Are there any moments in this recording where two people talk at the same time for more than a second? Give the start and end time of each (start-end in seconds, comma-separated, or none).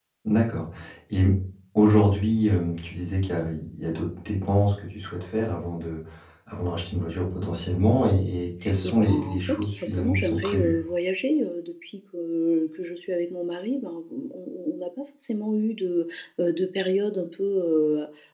8.8-10.7